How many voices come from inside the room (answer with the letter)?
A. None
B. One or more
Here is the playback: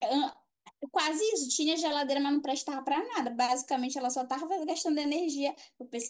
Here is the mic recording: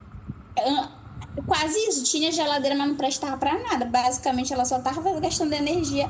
A